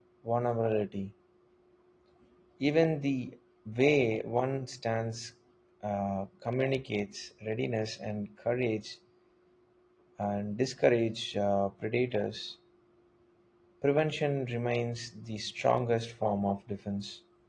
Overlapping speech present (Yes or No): No